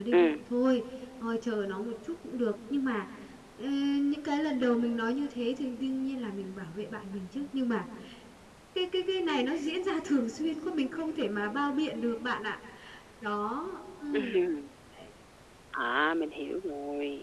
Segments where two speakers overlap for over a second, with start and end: none

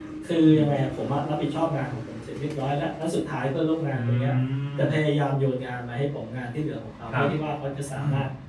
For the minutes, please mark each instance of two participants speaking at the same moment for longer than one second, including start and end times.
none

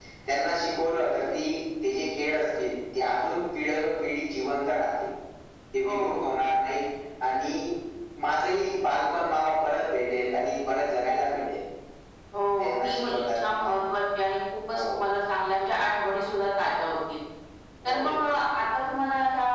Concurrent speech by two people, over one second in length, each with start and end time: 12.6-13.9

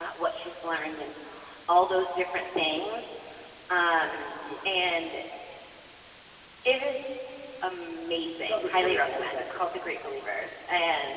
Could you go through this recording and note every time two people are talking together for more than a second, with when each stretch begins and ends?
8.5-9.9

